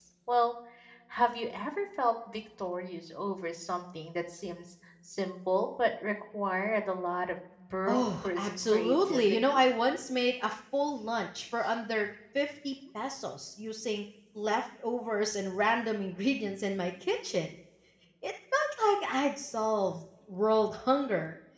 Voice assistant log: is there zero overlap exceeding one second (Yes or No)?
No